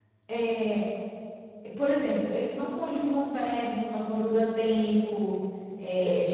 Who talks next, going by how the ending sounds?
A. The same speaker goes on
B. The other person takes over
A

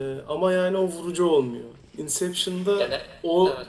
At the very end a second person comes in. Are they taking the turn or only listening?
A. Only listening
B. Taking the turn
A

